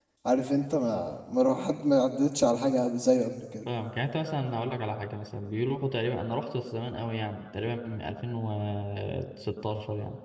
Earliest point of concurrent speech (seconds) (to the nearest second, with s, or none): none